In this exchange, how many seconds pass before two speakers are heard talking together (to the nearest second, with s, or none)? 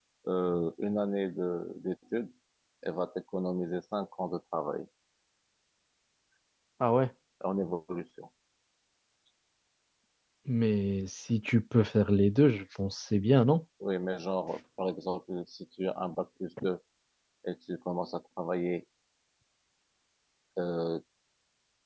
none